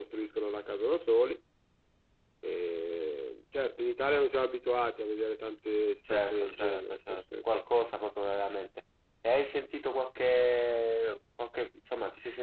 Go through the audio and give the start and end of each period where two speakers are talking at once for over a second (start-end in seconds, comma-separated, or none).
6.1-7.6